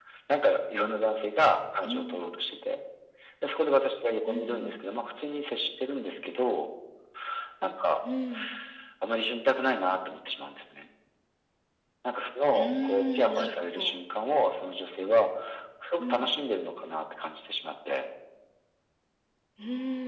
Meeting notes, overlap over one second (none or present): present